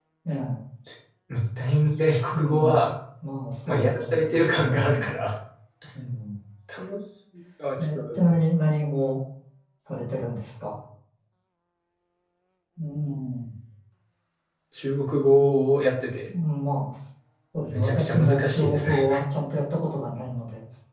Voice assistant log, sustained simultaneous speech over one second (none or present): present